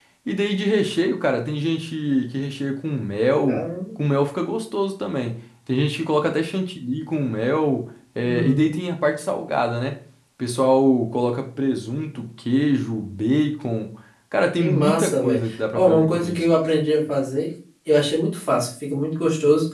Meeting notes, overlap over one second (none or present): present